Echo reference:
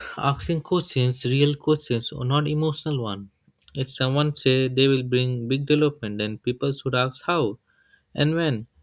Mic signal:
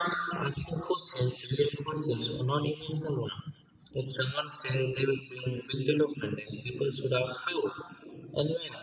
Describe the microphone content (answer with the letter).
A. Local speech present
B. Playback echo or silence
B